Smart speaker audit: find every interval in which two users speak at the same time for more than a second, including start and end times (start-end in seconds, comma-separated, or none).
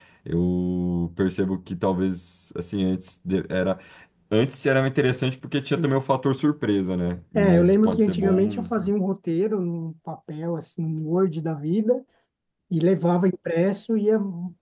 7.3-8.9